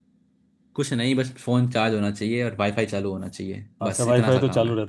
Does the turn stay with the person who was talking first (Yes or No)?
No